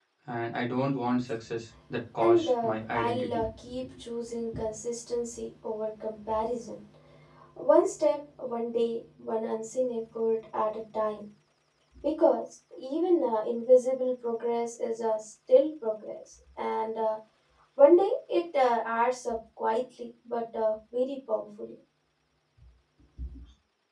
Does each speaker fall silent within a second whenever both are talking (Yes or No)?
No